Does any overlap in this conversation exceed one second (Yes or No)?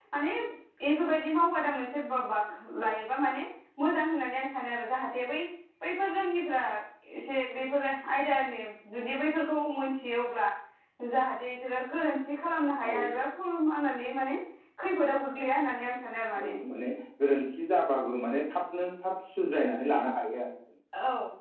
No